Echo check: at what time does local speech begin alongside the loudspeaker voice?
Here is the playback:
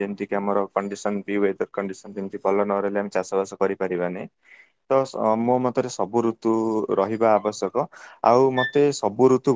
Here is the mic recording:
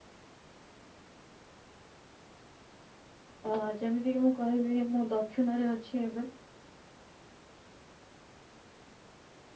3.5 s

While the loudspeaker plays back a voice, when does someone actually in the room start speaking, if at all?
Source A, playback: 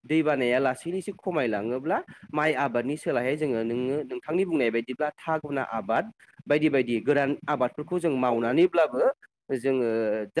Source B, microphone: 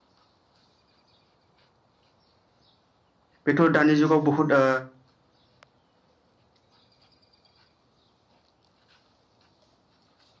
3.5 s

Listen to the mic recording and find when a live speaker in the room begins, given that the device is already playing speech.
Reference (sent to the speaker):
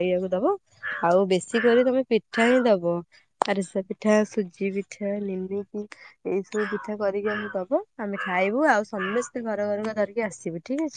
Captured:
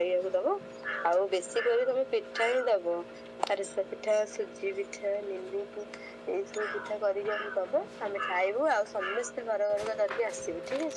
none

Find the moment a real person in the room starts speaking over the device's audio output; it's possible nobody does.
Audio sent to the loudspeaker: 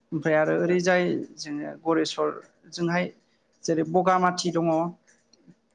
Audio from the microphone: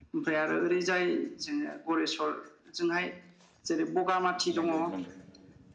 4.6 s

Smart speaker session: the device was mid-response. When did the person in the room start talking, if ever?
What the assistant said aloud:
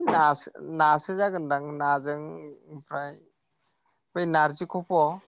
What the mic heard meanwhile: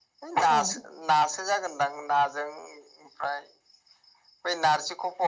0.4 s

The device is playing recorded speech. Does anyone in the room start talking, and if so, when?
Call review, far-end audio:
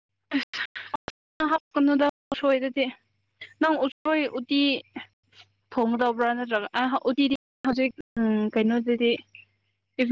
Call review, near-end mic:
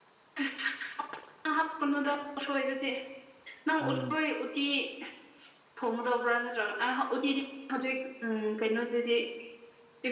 3.8 s

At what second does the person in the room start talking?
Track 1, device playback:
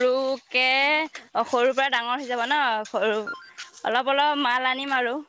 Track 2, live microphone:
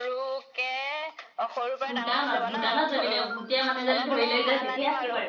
1.8 s

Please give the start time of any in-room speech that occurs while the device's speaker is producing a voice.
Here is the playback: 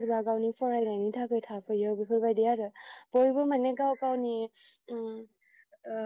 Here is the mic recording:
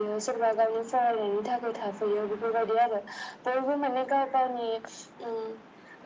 none

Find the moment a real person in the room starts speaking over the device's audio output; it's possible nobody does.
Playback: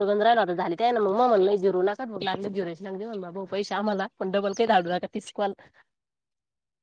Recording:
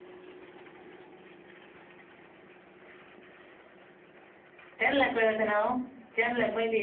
4.8 s

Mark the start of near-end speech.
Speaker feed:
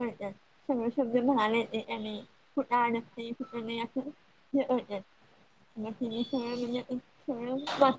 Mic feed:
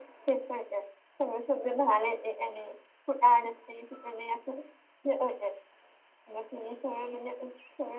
none

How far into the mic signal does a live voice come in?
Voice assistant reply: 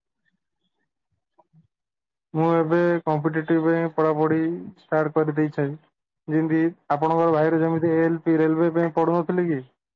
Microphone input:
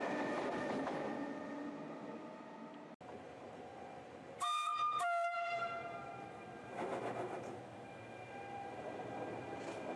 none

